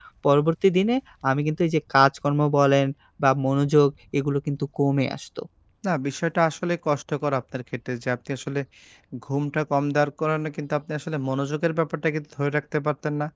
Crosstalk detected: No

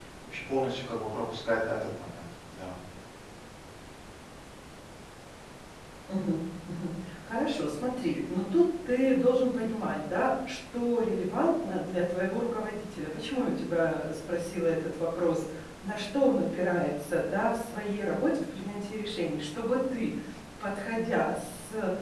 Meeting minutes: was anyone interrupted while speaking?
No

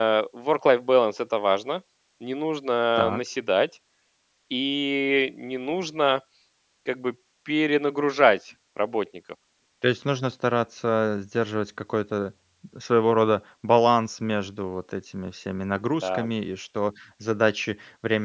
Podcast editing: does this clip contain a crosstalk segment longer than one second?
No

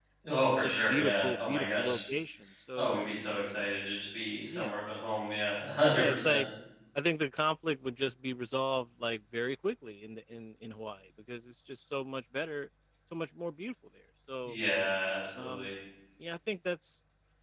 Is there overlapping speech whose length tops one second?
Yes, from 0.6 s

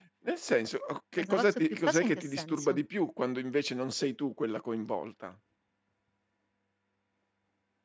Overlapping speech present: Yes, from 1.2 s

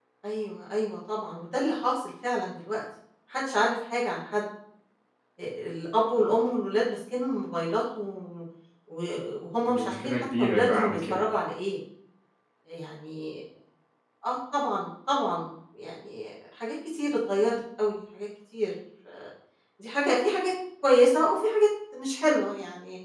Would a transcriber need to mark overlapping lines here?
Yes, from 9.7 s

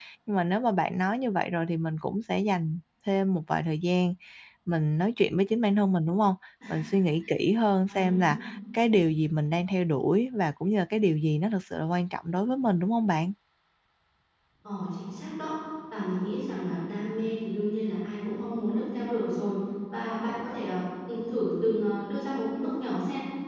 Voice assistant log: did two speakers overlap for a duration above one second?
No

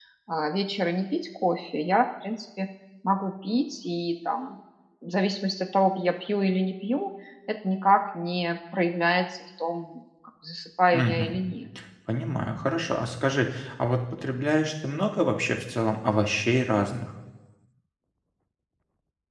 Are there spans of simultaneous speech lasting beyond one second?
No

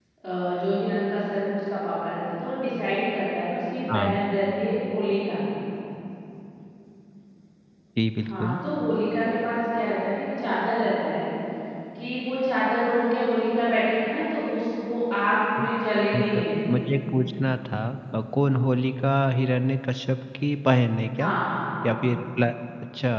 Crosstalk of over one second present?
No

